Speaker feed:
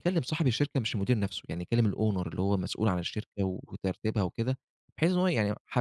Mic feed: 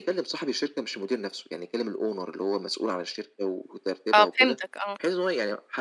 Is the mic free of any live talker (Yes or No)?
No